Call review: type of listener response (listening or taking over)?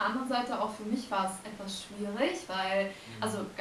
listening